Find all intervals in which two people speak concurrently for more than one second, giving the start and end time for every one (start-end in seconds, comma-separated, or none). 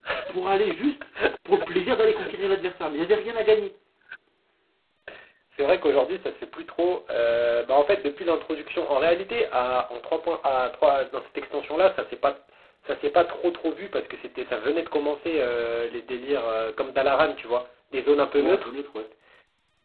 none